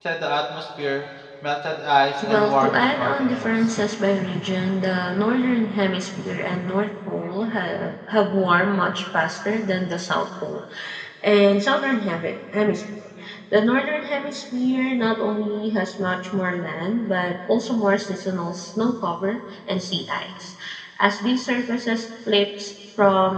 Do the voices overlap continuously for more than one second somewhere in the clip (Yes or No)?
Yes